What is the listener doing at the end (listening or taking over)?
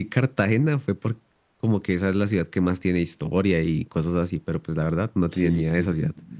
taking over